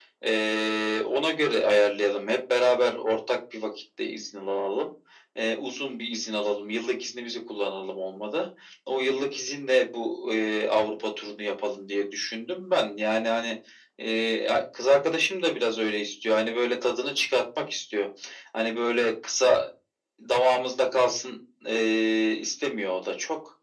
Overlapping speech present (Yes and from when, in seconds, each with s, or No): No